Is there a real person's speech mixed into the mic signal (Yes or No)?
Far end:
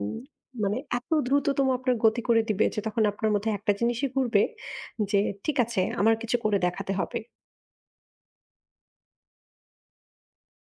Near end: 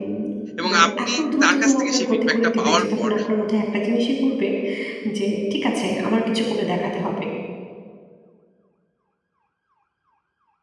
Yes